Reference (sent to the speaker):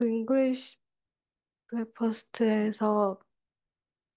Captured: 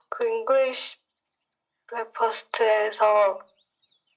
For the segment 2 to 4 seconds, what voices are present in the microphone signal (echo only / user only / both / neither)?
echo only